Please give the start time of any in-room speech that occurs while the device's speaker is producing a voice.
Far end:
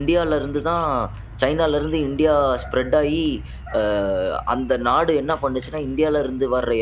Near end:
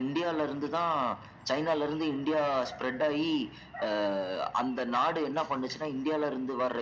none

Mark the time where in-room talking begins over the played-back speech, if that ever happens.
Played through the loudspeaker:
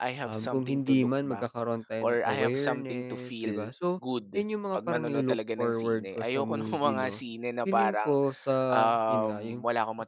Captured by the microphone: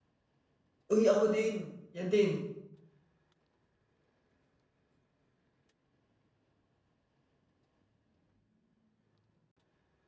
0.9 s

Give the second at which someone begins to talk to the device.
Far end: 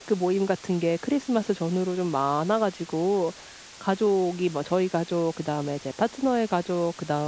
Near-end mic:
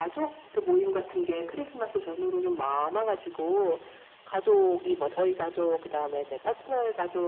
none

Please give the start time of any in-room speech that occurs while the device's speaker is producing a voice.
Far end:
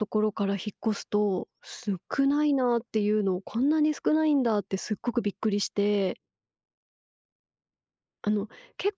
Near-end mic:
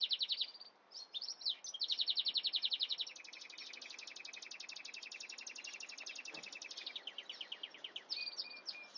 none

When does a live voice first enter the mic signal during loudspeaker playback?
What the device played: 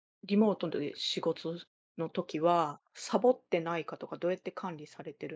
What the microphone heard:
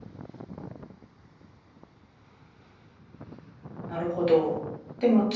3.9 s

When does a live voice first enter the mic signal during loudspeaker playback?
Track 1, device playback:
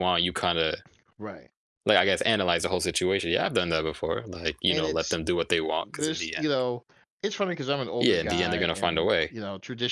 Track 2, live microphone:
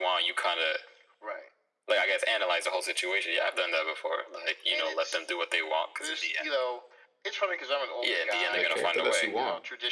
8.5 s

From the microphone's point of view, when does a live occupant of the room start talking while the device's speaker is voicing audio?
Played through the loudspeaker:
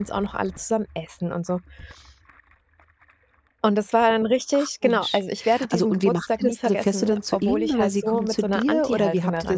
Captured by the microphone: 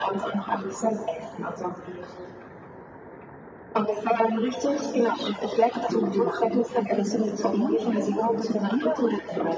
7.1 s

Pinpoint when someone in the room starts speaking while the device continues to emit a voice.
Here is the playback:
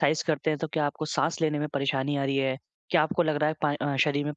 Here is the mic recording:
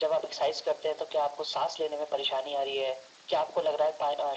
none

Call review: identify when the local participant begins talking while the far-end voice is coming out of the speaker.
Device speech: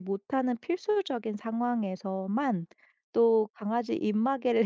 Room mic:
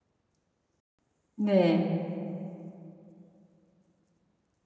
1.4 s

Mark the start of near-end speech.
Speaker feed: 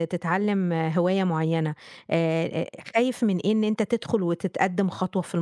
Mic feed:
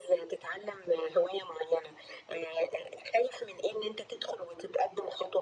none

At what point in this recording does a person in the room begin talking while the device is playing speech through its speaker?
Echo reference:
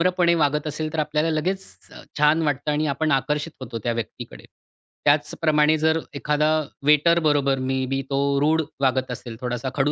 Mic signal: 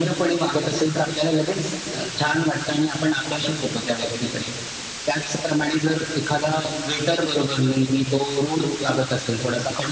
none

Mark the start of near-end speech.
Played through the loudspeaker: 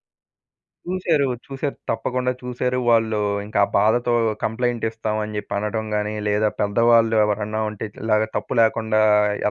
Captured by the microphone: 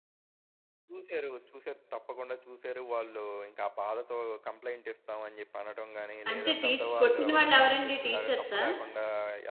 6.3 s

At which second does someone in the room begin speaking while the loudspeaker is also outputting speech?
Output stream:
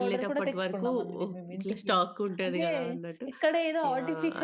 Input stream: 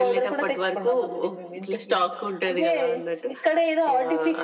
none

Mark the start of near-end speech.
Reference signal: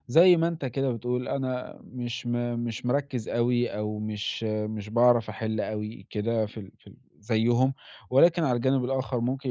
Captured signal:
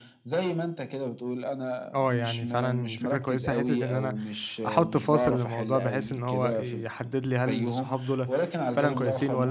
1.9 s

